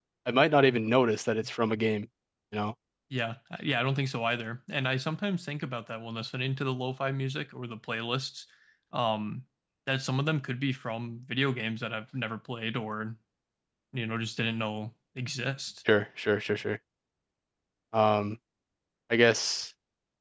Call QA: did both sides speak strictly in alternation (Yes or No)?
Yes